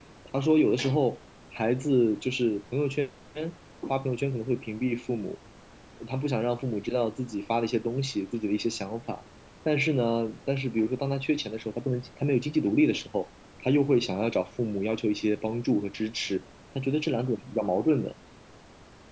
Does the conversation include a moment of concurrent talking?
No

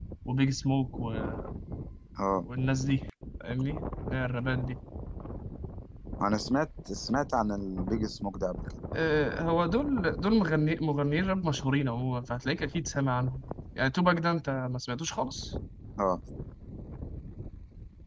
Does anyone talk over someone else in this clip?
No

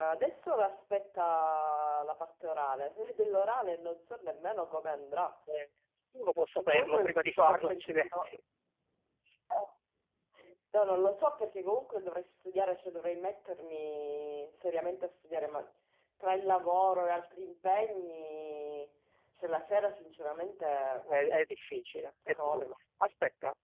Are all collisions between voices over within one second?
No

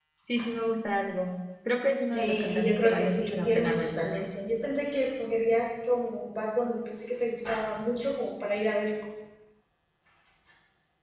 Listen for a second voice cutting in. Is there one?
Yes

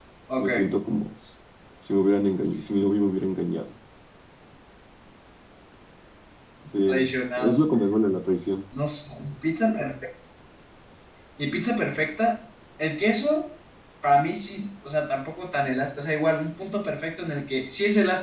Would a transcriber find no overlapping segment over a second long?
Yes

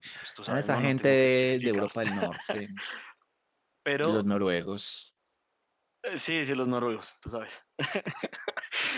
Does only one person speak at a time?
No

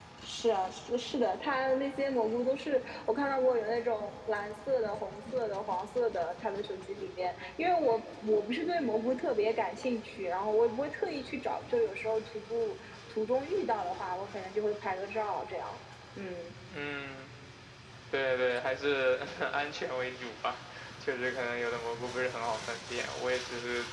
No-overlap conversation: Yes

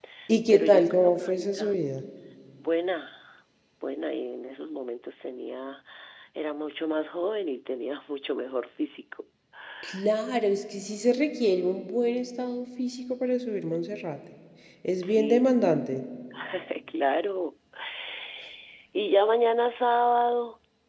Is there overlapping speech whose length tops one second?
Yes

